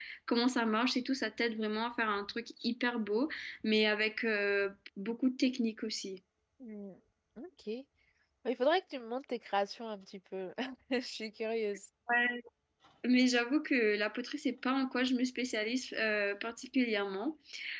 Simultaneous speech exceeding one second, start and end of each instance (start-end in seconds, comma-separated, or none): none